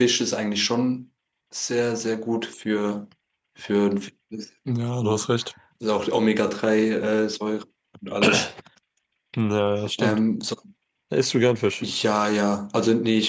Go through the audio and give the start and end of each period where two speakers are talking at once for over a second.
none

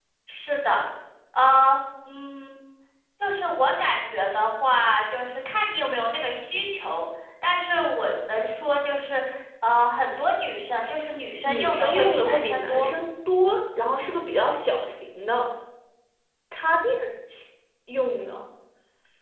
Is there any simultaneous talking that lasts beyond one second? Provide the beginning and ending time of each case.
11.5-12.9

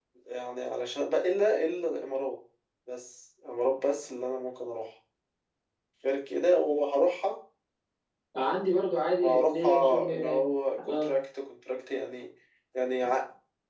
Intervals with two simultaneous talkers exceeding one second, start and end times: 9.2-10.4

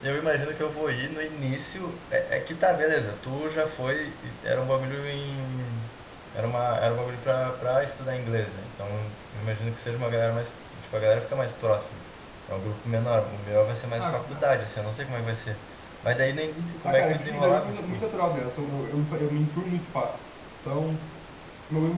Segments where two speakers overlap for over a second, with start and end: 16.8-18.1

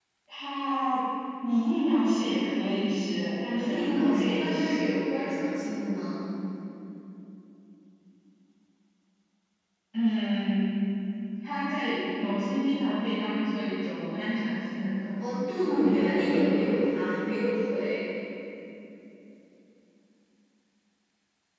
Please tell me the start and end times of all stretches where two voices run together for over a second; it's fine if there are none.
3.5-5.0, 15.2-16.8

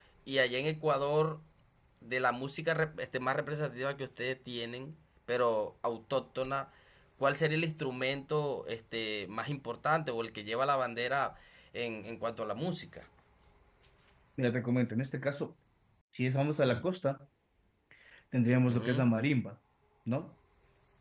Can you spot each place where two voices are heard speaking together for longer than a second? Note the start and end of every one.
none

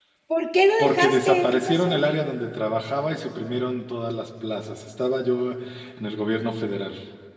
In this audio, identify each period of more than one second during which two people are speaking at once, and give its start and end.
0.8-2.0

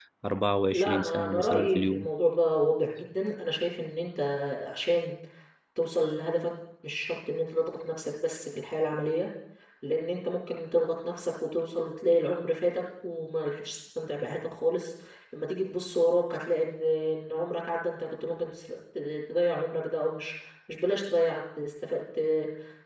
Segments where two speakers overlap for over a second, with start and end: 0.7-2.1

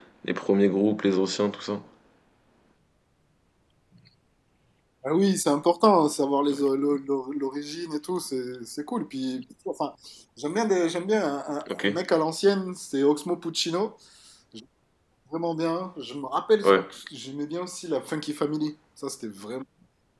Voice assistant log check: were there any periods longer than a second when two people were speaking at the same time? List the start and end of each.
none

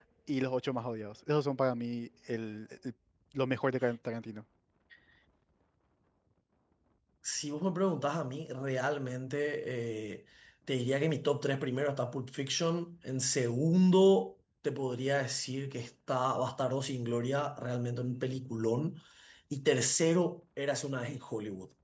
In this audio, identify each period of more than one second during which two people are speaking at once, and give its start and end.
none

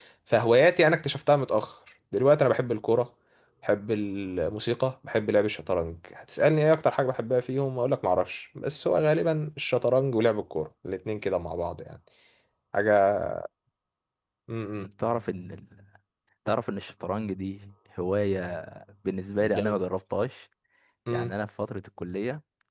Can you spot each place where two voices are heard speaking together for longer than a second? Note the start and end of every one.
none

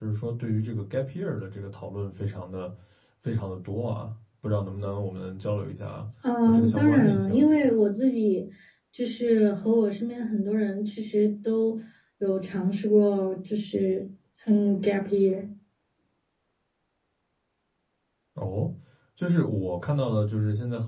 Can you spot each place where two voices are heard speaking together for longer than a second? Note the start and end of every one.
6.4-7.7

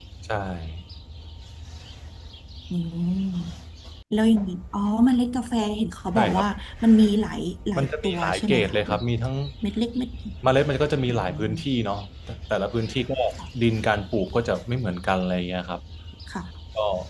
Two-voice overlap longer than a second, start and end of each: 7.8-9.0

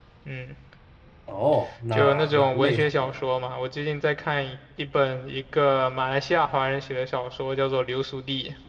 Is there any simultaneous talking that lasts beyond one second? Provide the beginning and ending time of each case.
1.9-3.2

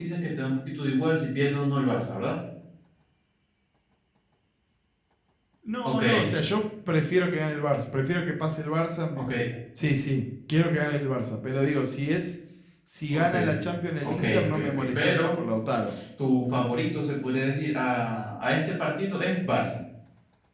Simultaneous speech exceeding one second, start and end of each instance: 14.0-15.3

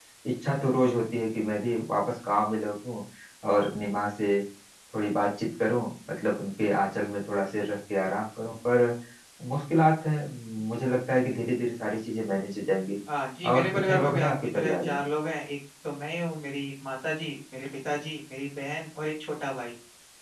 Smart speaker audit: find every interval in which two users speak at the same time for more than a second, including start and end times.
13.5-15.0

